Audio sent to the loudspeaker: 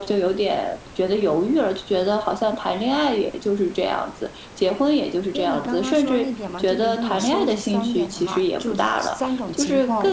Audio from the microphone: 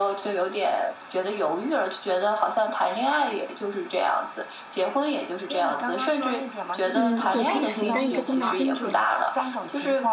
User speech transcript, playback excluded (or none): 嗯，我可以承担一个更大风险。